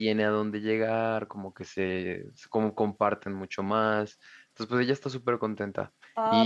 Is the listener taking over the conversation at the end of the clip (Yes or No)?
Yes